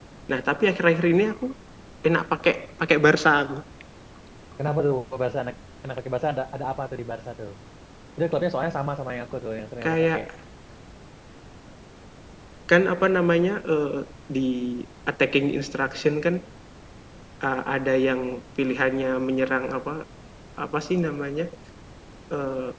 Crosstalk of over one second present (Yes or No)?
No